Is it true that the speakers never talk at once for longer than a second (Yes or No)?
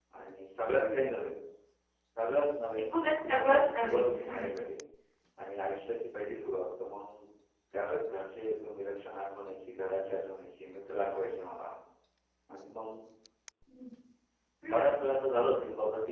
No